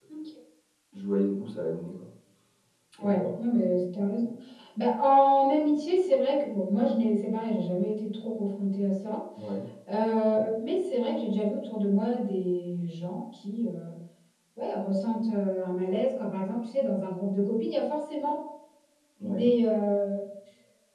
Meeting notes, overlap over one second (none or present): none